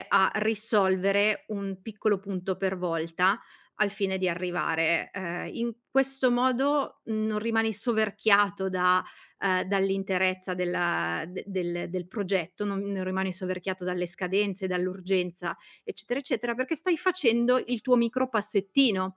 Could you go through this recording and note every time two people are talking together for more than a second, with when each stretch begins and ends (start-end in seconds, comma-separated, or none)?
none